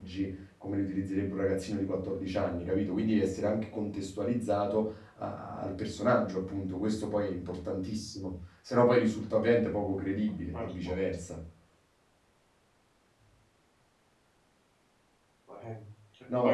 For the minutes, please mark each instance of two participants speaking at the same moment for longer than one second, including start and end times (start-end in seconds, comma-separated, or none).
none